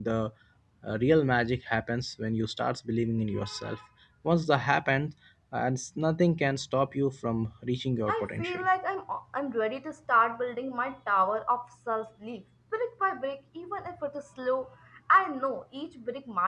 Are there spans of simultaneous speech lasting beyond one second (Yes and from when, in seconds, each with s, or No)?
No